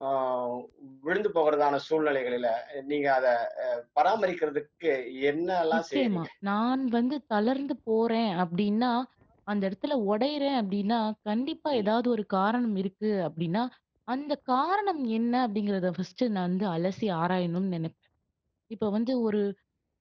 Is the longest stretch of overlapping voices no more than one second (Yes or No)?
Yes